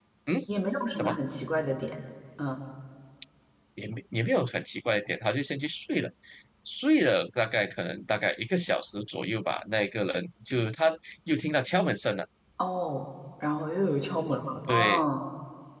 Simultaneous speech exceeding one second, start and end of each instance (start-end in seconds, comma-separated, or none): none